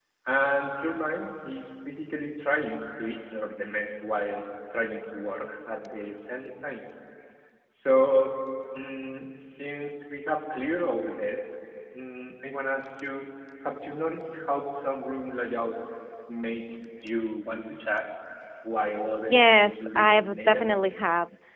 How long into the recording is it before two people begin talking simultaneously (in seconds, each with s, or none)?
19.3 s